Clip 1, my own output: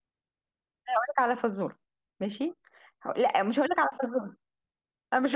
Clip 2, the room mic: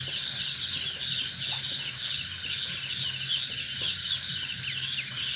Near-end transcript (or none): none